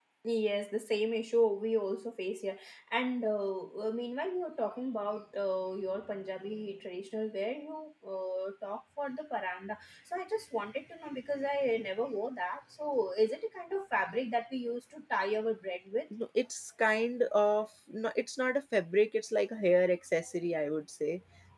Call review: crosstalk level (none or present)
none